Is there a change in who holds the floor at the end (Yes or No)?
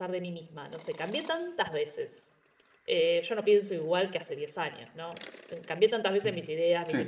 No